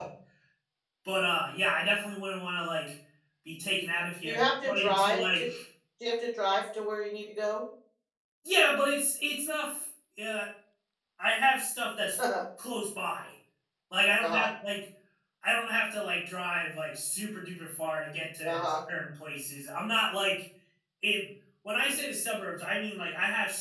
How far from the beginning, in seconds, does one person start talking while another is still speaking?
4.2 s

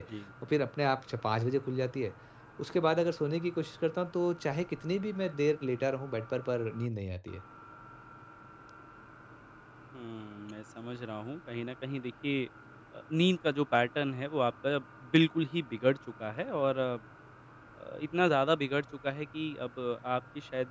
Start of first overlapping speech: none

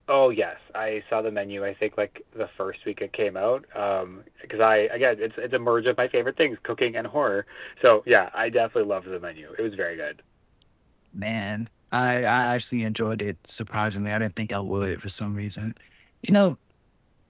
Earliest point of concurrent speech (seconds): none

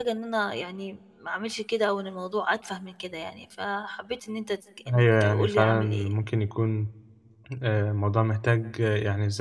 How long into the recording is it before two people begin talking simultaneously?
4.9 s

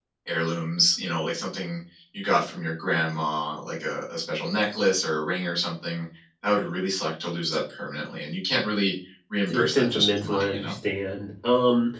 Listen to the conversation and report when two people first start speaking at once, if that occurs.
9.5 s

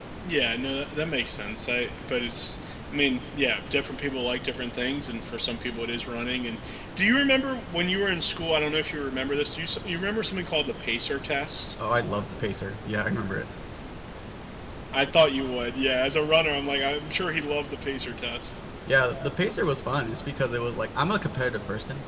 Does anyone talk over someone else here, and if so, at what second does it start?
none

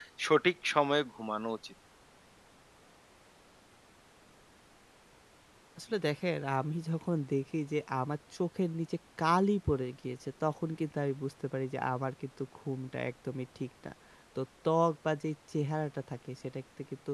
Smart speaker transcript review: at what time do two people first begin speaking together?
none

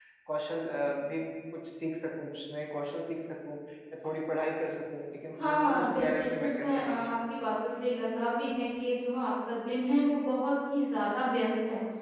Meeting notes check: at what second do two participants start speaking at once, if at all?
5.4 s

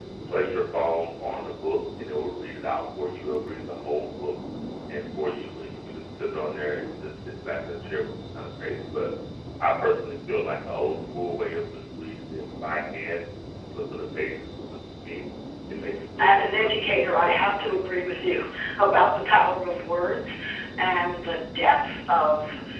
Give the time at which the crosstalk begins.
16.2 s

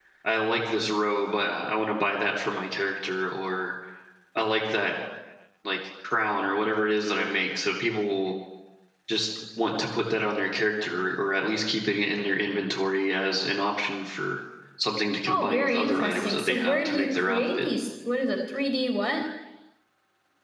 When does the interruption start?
15.3 s

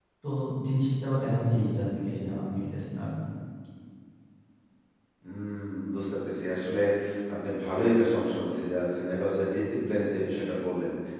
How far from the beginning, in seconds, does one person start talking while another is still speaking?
none

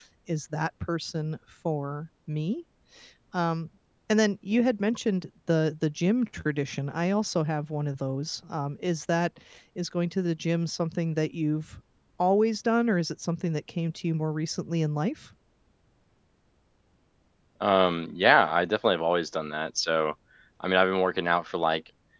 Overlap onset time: none

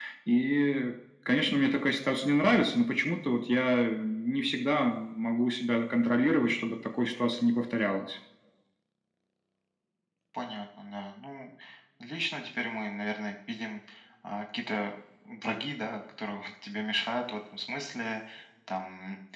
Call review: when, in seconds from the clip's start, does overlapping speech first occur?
none

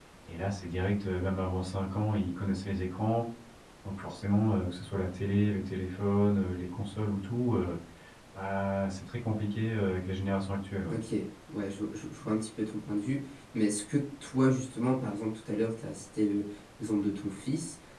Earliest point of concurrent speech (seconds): none

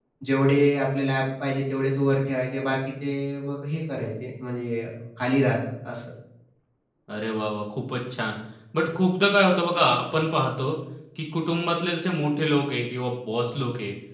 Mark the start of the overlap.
none

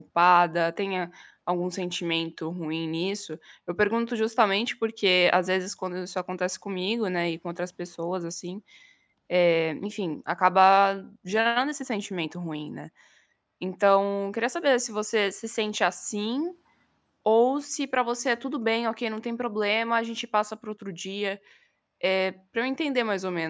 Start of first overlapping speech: none

